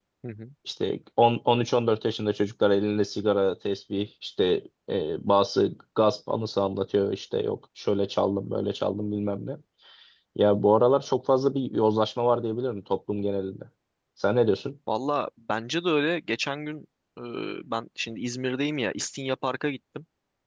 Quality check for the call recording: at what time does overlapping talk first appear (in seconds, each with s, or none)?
none